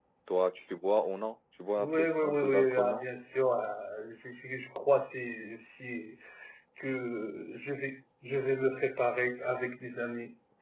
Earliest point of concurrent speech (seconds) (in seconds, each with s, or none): 1.8 s